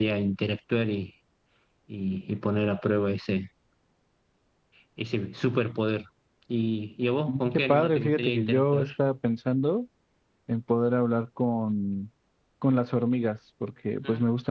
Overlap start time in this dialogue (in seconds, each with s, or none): 7.3 s